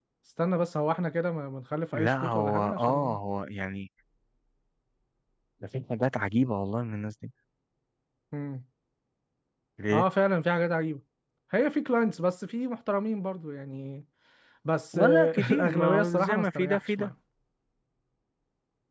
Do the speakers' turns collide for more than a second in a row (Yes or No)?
Yes